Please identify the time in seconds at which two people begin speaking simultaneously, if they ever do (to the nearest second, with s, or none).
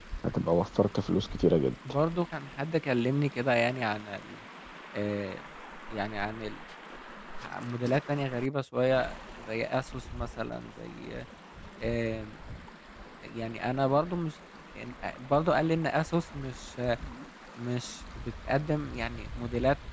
none